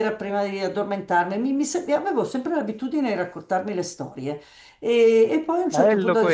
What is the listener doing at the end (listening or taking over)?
listening